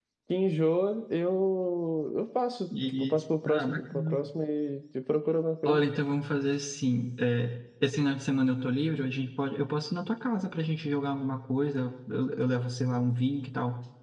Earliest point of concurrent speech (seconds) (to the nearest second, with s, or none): 3 s